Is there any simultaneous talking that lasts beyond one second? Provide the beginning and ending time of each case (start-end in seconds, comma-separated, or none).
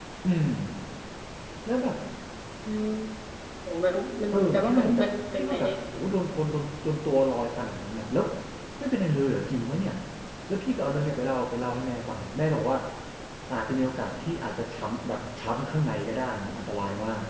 4.3-5.7